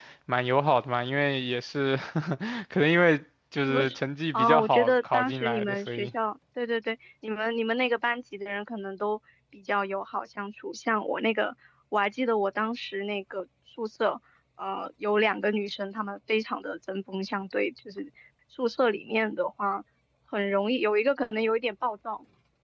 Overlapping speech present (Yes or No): Yes